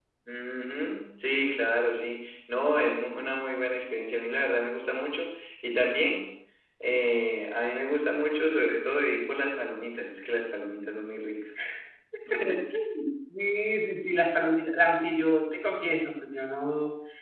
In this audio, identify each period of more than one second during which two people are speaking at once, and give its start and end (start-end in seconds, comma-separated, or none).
none